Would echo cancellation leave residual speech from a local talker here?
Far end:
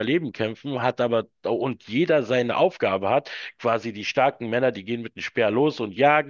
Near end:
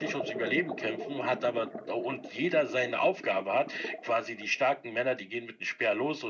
No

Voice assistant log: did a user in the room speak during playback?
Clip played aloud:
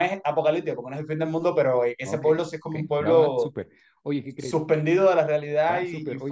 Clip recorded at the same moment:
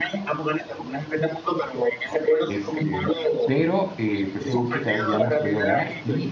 Yes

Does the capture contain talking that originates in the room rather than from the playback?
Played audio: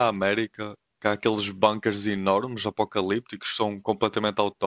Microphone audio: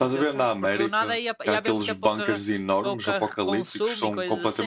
Yes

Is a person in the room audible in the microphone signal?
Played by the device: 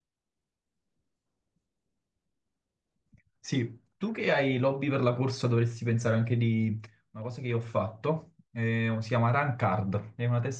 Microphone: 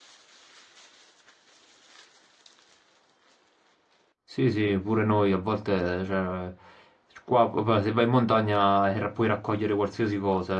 Yes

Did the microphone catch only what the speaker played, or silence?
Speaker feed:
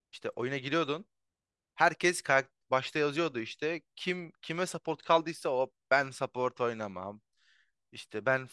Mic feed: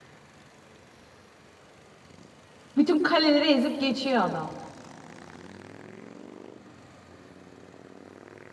No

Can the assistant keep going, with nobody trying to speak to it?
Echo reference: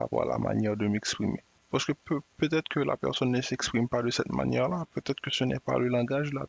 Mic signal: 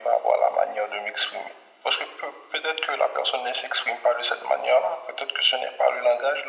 Yes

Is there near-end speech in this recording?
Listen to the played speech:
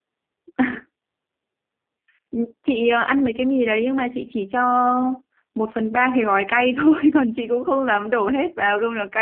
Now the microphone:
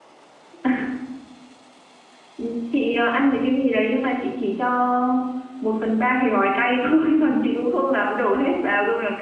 No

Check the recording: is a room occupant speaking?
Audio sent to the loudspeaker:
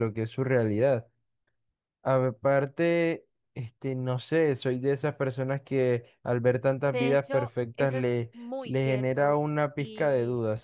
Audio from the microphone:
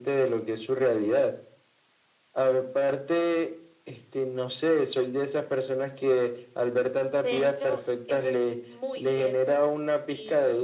No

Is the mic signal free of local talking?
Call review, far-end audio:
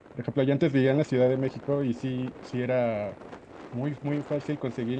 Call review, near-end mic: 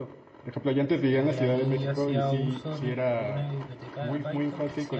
No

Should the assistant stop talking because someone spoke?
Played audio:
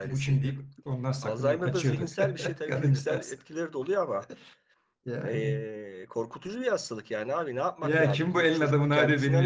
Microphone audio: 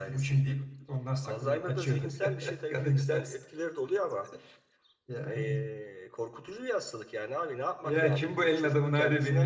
No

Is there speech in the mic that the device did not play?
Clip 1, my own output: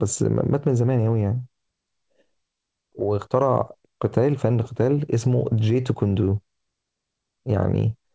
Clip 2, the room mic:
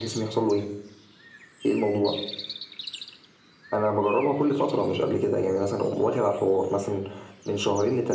Yes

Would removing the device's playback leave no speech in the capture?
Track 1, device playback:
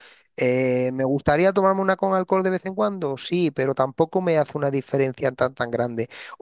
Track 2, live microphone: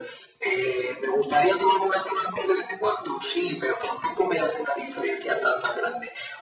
Yes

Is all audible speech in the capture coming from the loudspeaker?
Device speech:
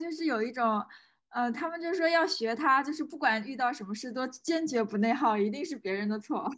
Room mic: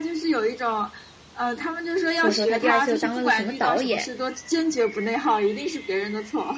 No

